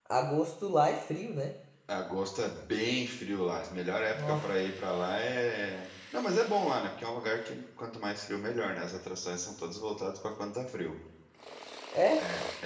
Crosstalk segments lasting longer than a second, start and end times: none

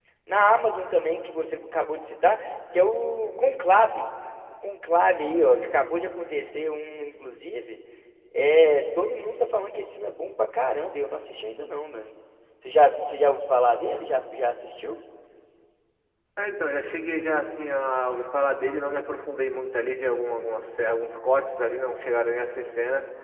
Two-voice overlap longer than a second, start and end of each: none

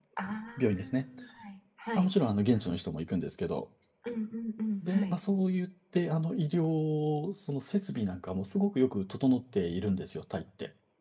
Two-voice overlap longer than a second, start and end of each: none

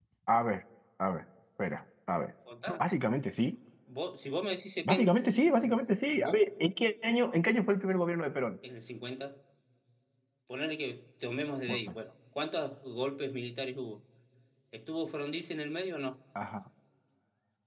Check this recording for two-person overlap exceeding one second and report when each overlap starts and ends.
none

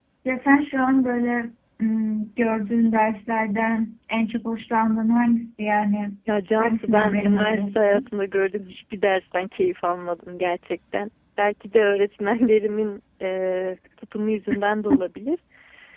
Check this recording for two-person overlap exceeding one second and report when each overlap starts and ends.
6.6-8.1

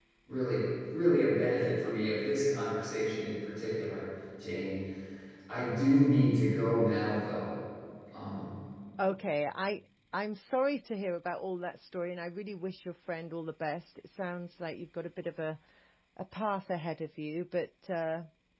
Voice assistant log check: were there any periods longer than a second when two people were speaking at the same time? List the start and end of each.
none

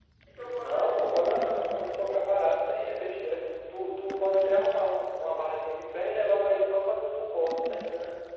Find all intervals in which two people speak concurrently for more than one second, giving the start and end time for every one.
0.6-2.1

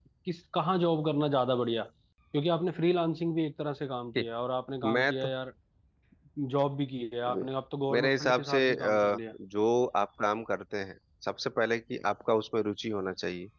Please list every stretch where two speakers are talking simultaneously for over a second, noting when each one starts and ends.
7.9-9.2

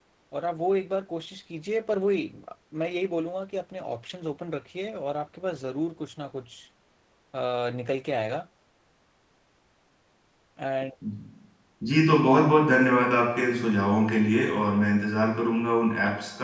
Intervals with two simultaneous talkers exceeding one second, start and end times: none

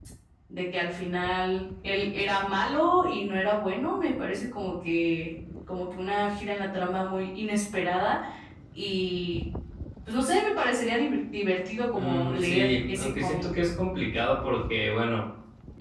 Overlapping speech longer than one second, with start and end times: 11.9-13.4

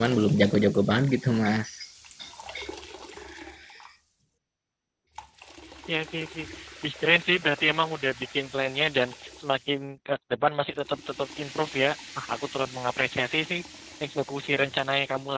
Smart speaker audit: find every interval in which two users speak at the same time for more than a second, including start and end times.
none

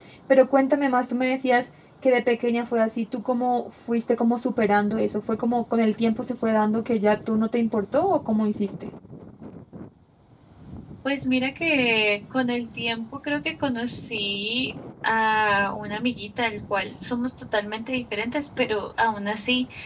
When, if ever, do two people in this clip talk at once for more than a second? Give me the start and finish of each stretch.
none

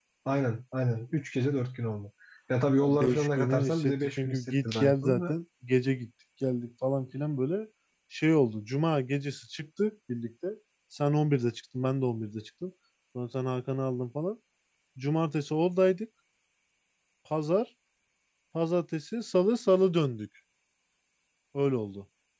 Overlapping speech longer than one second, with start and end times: 2.8-5.3

